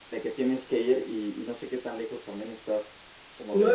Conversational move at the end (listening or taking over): taking over